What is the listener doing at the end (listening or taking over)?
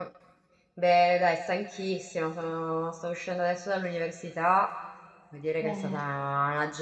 listening